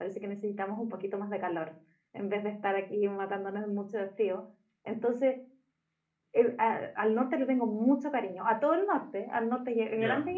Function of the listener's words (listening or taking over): listening